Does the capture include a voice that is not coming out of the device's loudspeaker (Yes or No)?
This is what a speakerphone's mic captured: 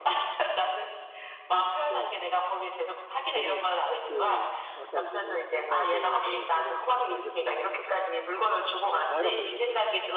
Yes